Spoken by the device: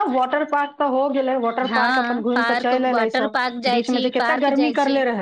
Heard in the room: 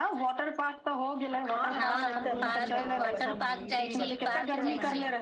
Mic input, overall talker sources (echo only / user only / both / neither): both